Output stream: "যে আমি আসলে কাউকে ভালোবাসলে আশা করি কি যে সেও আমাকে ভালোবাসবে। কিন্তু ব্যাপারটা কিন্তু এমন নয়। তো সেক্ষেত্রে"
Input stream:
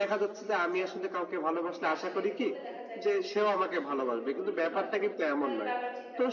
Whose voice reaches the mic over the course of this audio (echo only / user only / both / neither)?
both